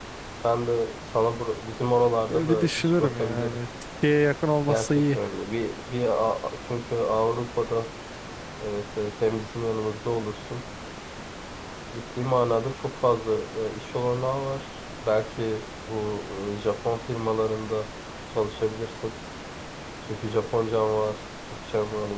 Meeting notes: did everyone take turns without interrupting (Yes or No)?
No